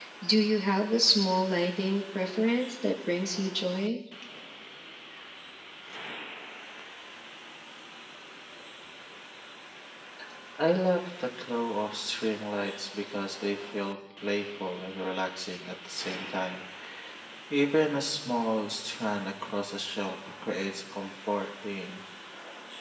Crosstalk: none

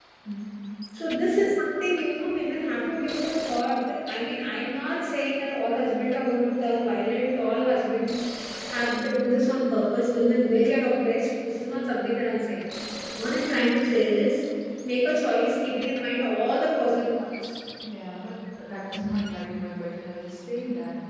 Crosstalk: none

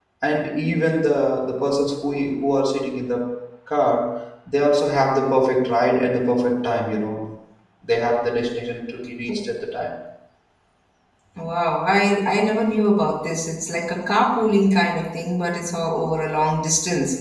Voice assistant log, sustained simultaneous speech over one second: none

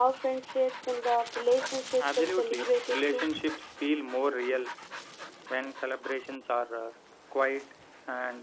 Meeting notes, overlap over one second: present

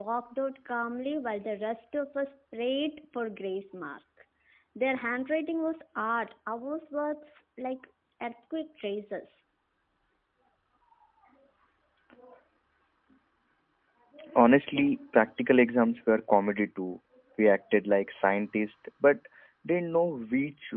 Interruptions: none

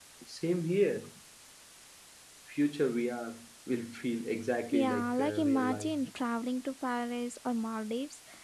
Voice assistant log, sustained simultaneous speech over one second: present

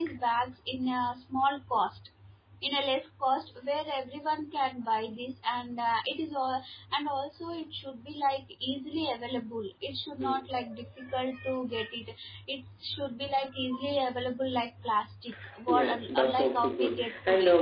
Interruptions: present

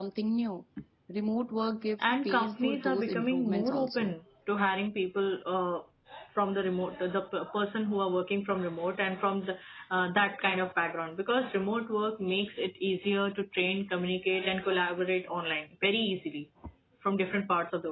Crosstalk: present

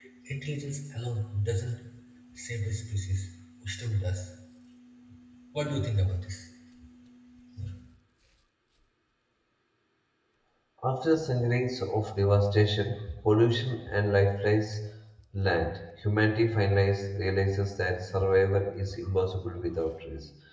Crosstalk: none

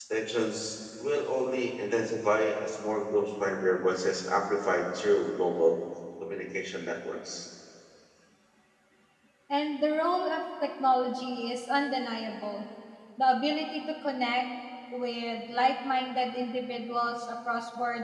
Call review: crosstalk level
none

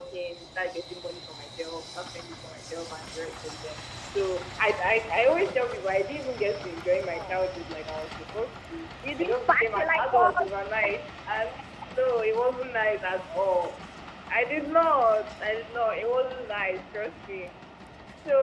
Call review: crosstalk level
present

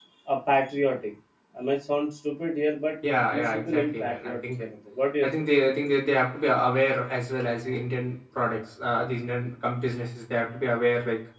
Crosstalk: present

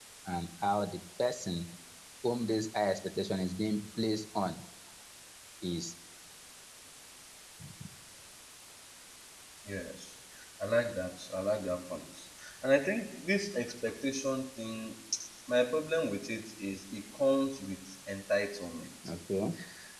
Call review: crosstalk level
none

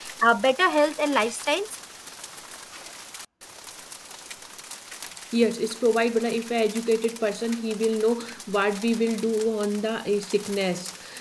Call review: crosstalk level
none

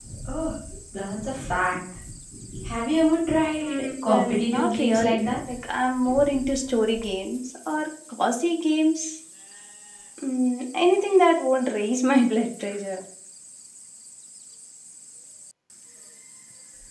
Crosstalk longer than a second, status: present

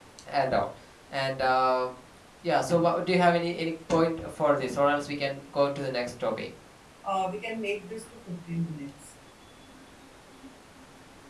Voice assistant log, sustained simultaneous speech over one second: none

